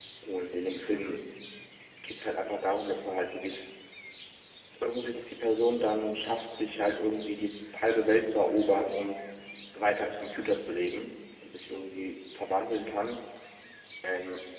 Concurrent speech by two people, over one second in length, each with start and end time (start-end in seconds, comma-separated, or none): none